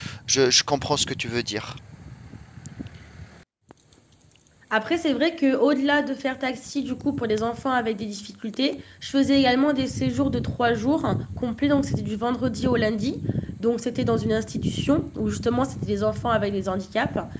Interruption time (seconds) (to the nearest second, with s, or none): none